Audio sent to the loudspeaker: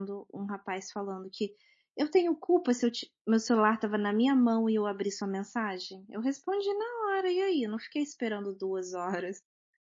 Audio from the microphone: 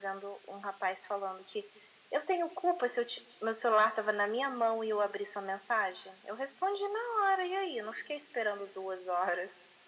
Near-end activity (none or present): none